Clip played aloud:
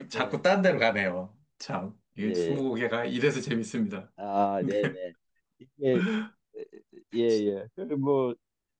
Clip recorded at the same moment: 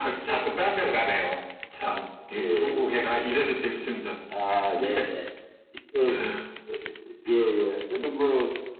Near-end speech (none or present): none